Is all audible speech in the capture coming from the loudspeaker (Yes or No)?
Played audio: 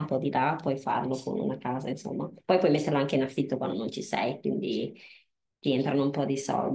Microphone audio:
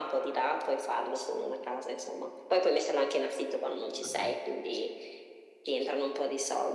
No